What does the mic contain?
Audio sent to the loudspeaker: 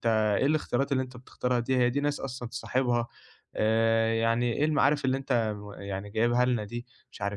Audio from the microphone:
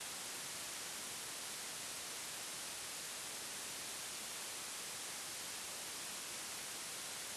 neither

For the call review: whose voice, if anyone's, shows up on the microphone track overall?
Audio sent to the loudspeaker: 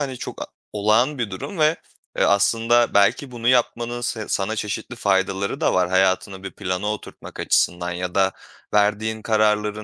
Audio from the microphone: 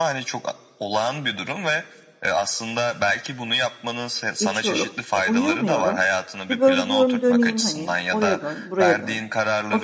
both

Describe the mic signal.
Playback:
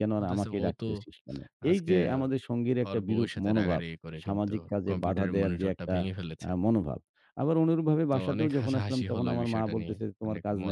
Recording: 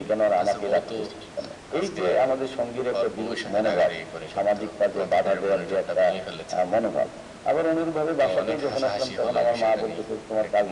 echo only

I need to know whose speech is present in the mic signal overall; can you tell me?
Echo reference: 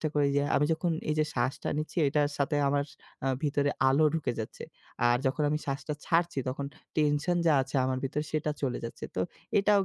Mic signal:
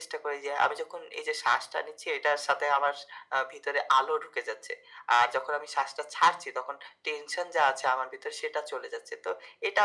echo only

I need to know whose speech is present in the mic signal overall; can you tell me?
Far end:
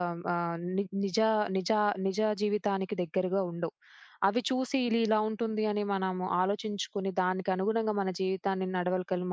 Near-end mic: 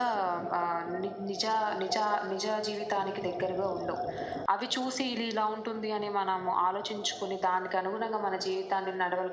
echo only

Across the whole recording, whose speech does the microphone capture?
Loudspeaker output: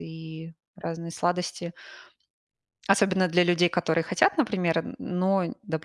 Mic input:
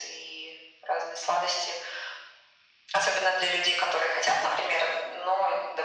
echo only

